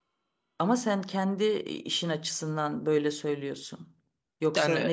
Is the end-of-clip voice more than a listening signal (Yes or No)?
No